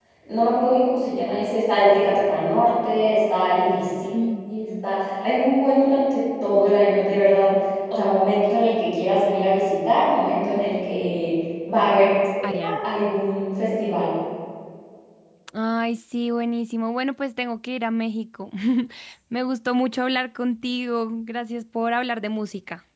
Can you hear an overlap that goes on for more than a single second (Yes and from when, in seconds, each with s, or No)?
No